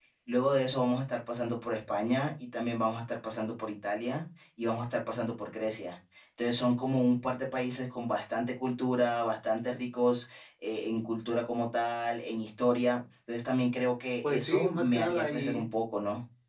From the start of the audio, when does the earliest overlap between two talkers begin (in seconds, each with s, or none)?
14.2 s